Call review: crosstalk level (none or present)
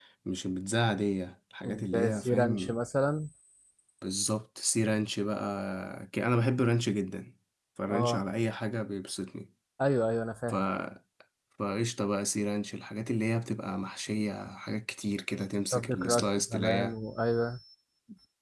present